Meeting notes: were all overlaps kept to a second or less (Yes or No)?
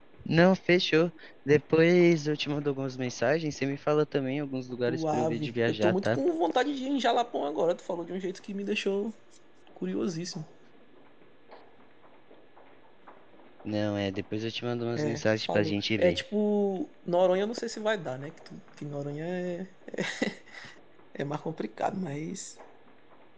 No